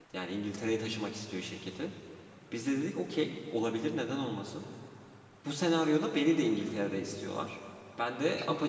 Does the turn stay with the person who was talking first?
Yes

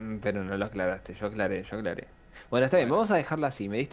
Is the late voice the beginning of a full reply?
No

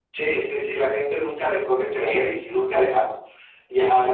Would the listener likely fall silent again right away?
No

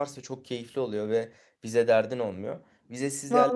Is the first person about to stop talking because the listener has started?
No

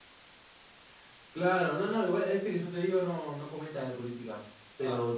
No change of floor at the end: Yes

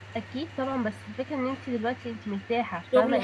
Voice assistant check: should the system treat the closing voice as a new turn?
Yes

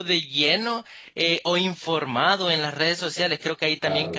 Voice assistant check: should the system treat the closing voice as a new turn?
No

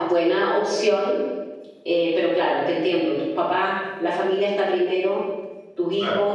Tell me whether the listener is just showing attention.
Yes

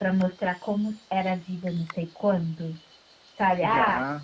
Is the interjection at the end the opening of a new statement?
No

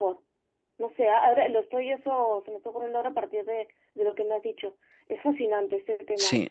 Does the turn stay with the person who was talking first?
No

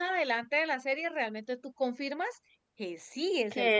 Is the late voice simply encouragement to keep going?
No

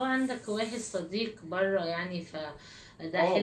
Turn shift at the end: Yes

